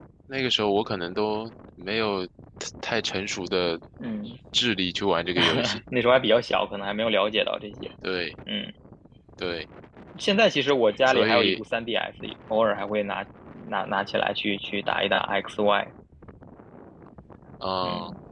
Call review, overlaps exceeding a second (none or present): none